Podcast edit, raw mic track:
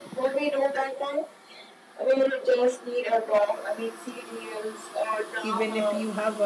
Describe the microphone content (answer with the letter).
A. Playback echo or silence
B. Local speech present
B